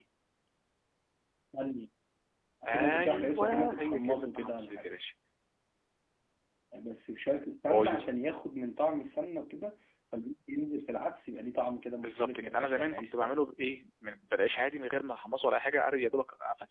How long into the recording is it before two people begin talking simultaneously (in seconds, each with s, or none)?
2.7 s